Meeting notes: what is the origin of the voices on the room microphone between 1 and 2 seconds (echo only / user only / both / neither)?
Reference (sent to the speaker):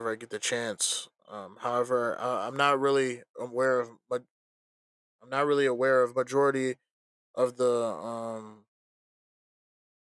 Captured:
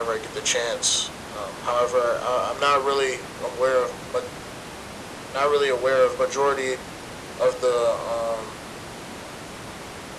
echo only